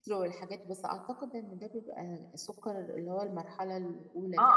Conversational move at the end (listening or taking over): taking over